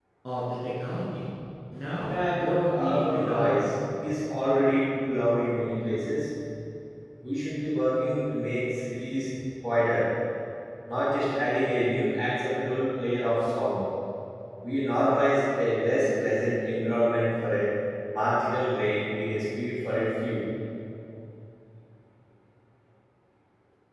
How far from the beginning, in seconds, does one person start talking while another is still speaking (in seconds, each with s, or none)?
2.0 s